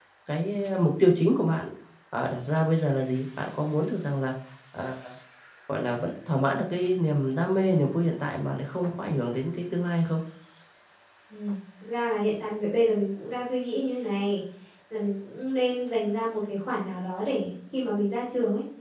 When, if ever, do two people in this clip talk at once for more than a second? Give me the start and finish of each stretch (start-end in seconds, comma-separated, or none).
none